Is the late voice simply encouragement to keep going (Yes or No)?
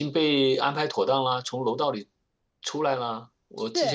No